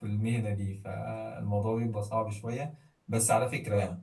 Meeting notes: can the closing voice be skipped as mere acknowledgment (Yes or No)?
Yes